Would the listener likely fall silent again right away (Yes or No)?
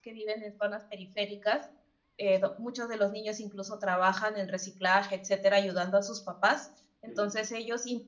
Yes